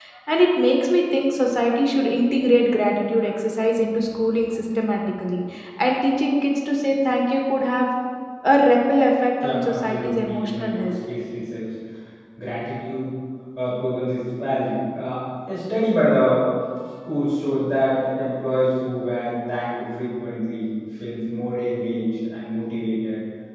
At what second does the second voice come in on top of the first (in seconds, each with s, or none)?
9.4 s